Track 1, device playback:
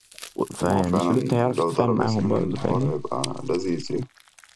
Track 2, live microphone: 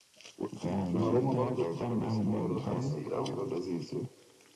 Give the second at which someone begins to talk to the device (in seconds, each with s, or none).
0.9 s